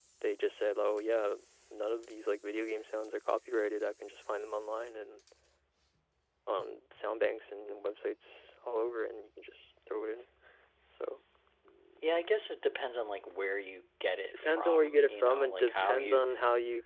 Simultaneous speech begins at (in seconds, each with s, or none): 14.3 s